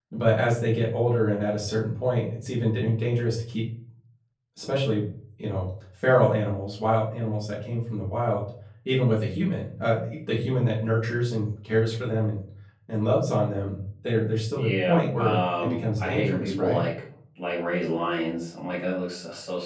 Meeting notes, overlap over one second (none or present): present